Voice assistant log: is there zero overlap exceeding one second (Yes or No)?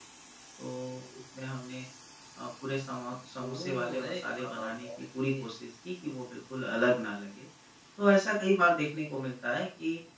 No